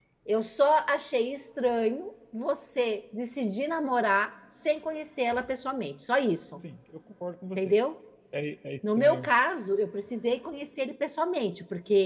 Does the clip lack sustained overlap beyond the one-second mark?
Yes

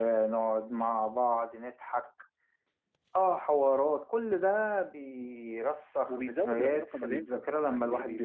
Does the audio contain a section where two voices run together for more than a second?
Yes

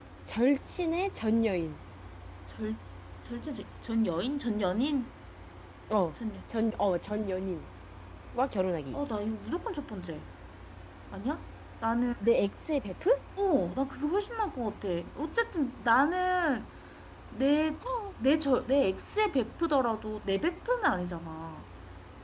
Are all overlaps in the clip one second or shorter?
Yes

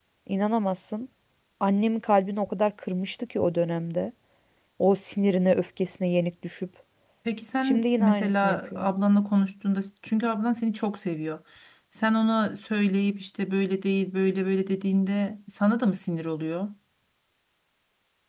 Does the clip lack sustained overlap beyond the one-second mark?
No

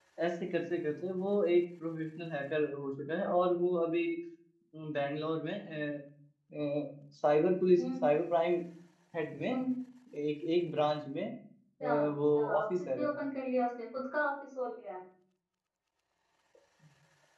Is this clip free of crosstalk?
No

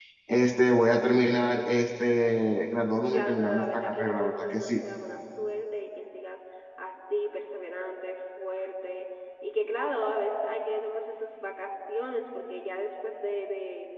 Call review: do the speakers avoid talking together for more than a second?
No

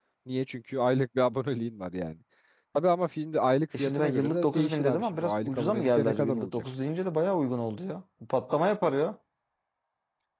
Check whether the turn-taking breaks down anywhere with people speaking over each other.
Yes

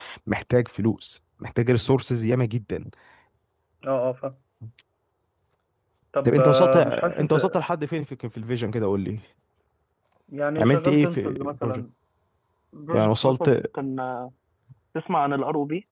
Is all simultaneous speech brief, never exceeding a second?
No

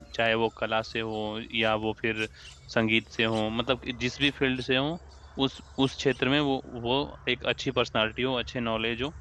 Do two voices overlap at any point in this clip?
No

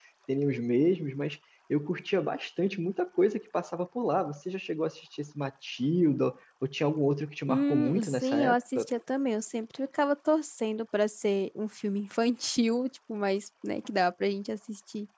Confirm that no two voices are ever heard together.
No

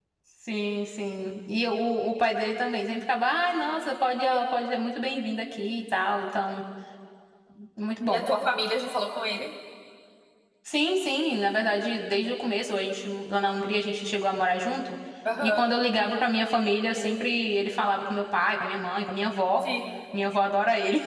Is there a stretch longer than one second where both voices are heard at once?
No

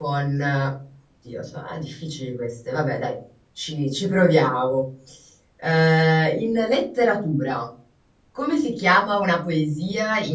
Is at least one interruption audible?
No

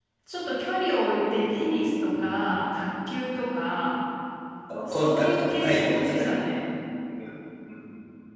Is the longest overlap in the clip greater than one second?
Yes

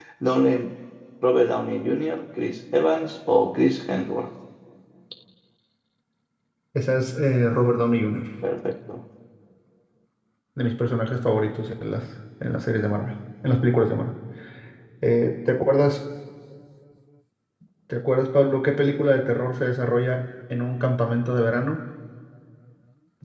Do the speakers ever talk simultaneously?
No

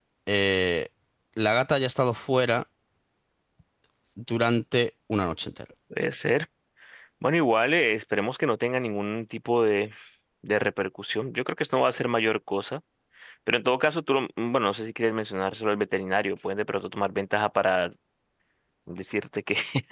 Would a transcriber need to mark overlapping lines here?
No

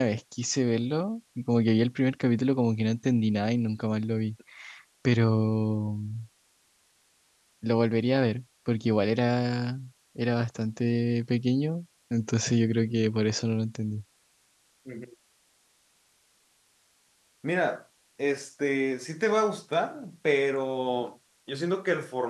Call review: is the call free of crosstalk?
Yes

